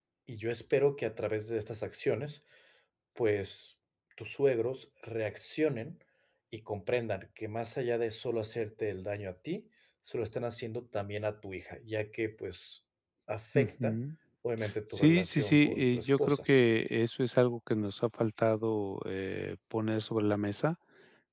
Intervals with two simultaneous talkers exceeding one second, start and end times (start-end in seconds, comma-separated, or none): 14.9-16.4